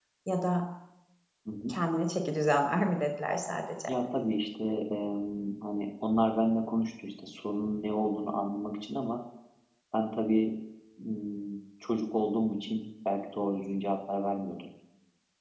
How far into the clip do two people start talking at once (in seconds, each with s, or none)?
none